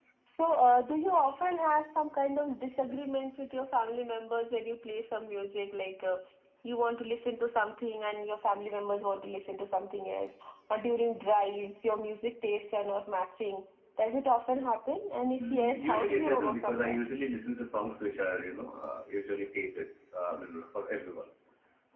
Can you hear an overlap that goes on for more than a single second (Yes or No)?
Yes